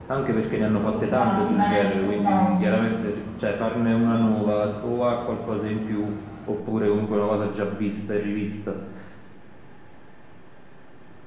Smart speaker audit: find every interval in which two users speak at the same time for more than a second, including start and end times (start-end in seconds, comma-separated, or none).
0.9-2.8